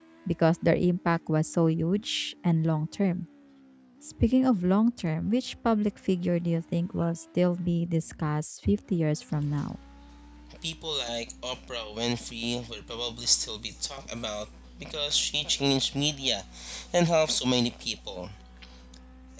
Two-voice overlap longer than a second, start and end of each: none

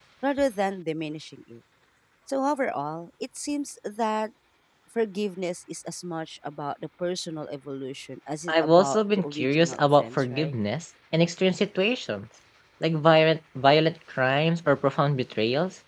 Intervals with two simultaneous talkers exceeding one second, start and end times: 8.5-10.5

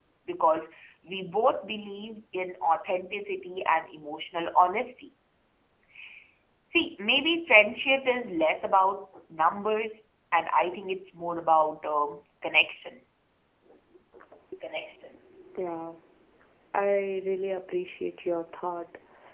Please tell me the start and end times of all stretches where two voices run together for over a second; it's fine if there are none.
none

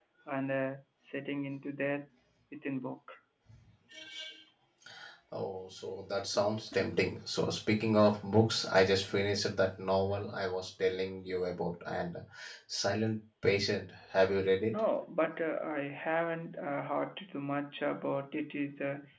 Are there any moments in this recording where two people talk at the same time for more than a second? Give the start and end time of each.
none

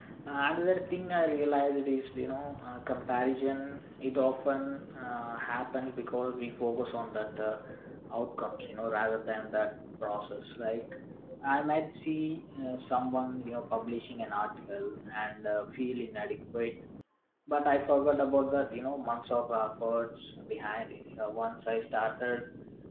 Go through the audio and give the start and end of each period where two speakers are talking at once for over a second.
none

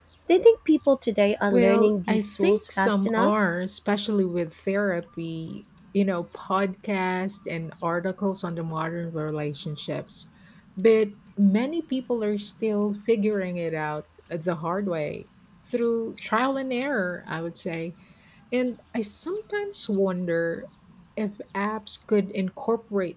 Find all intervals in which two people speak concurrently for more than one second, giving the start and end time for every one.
1.5-3.3

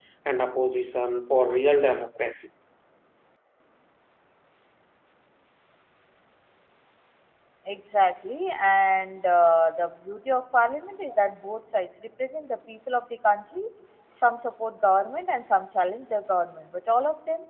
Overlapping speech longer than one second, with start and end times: none

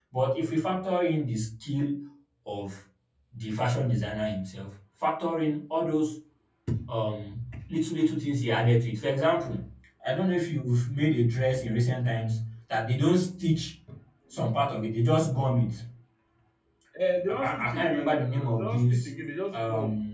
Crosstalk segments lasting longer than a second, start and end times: 17.3-18.9

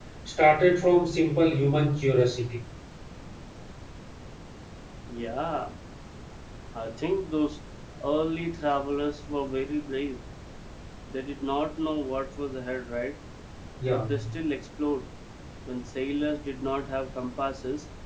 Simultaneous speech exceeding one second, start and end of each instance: none

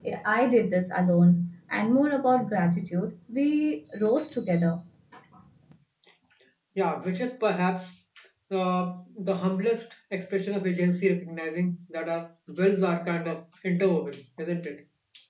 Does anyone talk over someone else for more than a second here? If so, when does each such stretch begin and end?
none

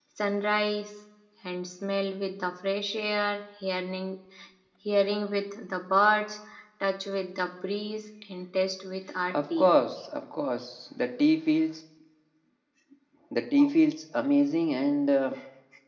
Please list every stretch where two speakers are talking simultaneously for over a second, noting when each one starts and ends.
none

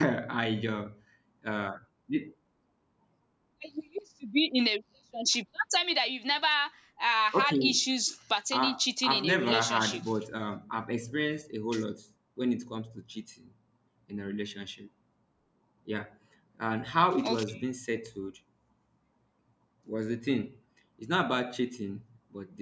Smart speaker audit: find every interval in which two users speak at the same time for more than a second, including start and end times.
8.5-10.0

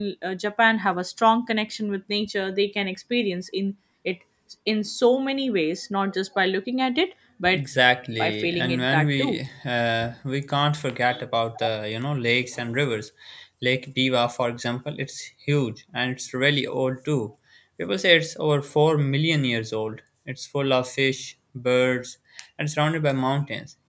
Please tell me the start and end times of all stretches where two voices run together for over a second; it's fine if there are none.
8.2-9.4

